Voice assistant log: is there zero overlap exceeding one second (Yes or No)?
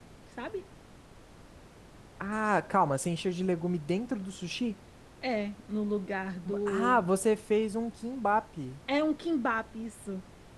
Yes